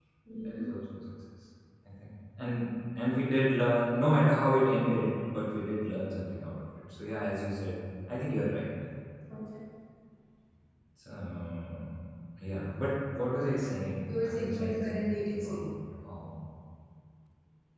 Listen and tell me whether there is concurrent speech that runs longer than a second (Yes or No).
Yes